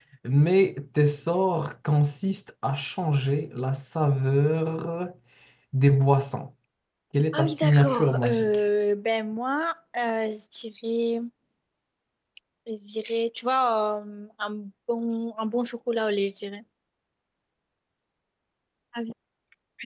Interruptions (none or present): present